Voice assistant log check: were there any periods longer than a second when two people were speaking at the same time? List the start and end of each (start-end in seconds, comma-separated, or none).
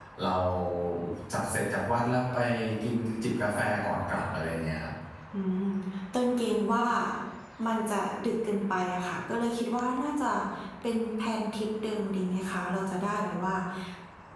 none